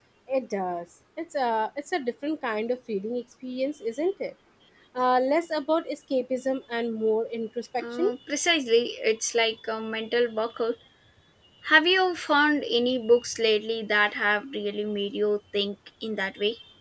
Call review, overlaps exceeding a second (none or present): none